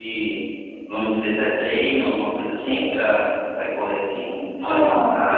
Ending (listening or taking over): taking over